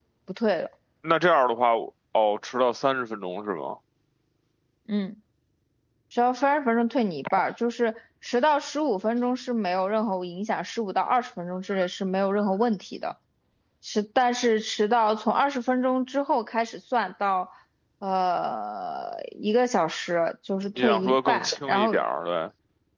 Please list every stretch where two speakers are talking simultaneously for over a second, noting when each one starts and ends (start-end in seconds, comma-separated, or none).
20.8-22.0